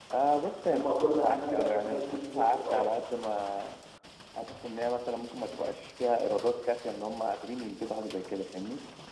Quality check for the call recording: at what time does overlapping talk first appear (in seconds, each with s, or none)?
0.6 s